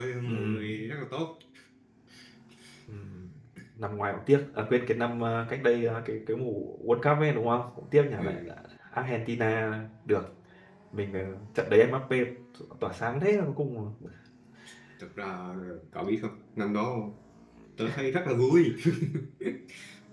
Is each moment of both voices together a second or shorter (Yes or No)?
Yes